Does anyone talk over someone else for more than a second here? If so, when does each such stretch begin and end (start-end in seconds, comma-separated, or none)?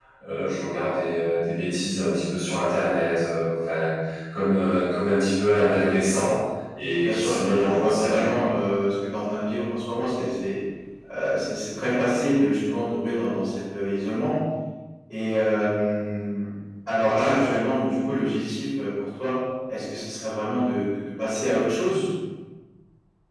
7.0-8.4